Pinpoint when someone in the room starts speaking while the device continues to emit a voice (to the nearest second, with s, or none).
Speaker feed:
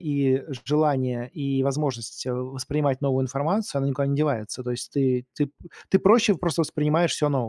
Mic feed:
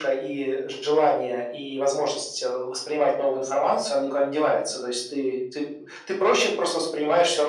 none